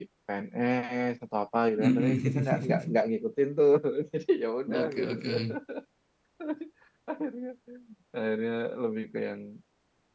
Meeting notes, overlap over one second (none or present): present